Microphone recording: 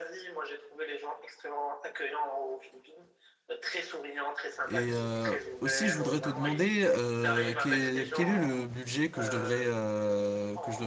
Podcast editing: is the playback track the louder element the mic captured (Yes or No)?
No